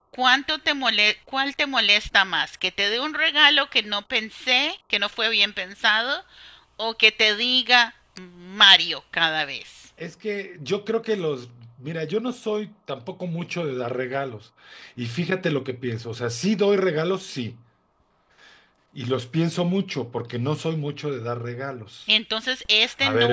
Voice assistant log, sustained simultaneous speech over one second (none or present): none